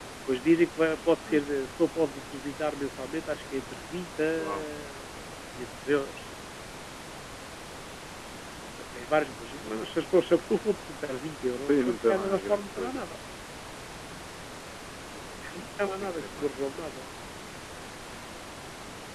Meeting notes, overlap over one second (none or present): present